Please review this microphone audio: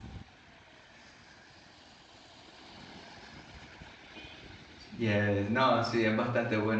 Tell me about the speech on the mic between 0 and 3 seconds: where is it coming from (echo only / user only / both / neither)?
neither